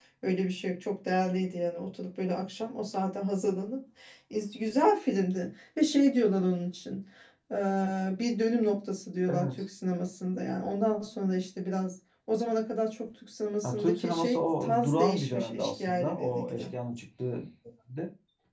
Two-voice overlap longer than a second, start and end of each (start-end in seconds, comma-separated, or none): 13.6-16.6